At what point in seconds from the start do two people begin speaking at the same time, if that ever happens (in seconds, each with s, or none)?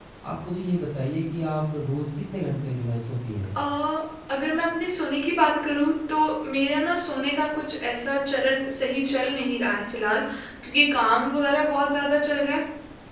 none